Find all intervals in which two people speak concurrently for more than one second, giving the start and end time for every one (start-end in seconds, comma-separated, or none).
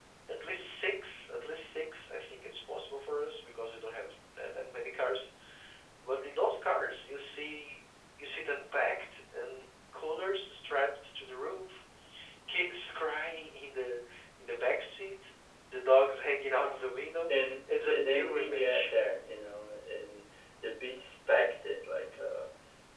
17.3-18.9